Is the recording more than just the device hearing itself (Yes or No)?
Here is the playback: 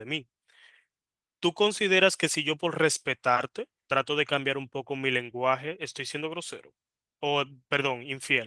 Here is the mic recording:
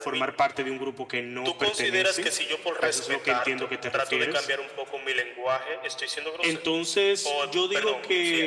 Yes